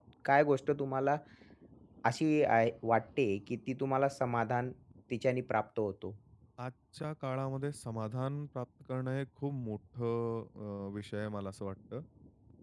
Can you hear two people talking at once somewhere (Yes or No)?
No